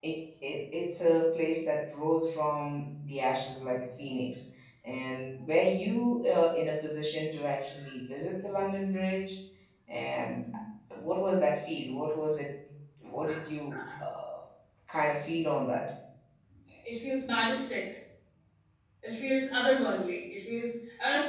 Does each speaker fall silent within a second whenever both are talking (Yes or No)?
Yes